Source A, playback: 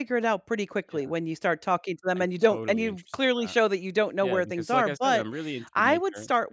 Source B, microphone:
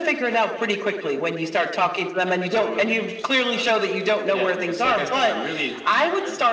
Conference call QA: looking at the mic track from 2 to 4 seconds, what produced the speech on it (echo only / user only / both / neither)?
echo only